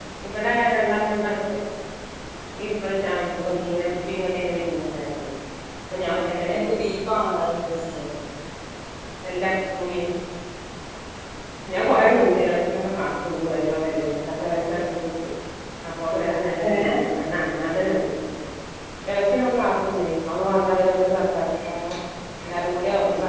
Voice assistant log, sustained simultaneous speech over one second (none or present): none